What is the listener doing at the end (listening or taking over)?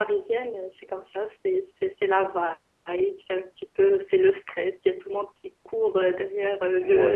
taking over